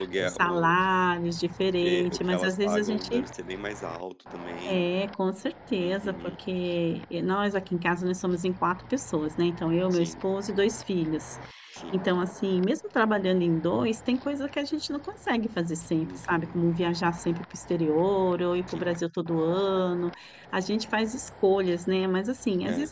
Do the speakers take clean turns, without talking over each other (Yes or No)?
No